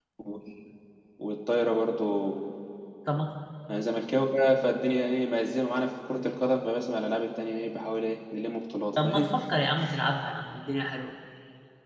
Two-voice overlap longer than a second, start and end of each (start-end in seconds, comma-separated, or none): none